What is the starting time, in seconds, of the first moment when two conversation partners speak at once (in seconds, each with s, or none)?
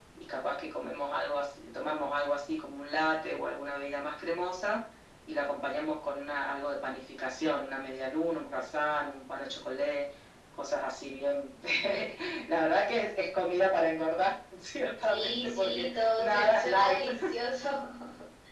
15.0 s